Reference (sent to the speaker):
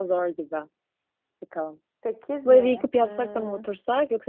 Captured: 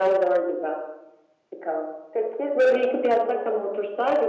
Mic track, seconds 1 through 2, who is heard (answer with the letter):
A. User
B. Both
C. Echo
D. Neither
C